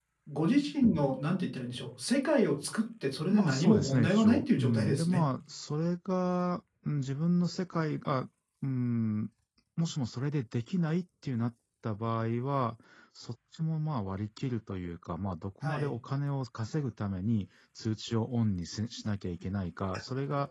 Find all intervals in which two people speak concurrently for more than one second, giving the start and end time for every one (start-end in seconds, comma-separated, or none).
3.3-5.2